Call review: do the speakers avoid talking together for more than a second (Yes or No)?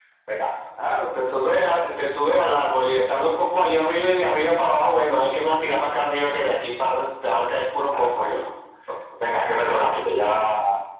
Yes